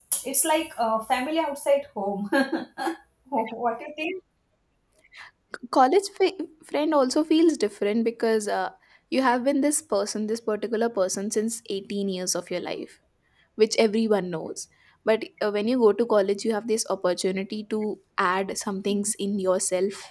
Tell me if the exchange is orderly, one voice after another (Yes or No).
Yes